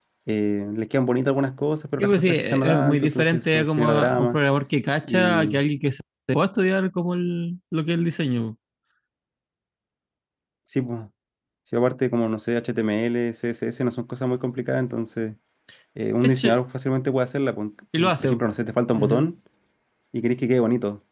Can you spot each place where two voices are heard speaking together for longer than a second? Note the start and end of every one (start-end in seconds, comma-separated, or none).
2.0-4.4